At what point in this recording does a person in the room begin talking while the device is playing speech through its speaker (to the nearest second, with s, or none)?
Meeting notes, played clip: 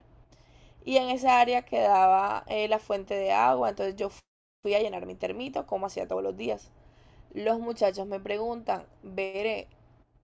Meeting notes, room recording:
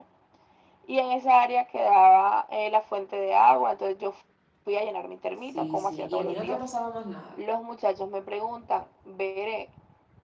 5 s